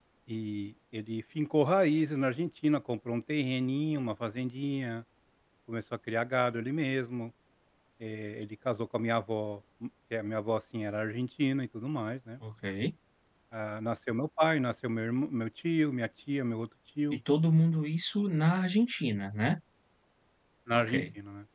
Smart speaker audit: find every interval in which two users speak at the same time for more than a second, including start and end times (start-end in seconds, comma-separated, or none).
none